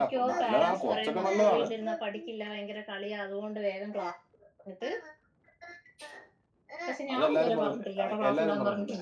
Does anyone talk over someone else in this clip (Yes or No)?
Yes